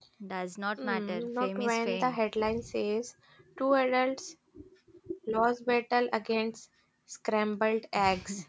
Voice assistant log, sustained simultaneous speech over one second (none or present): present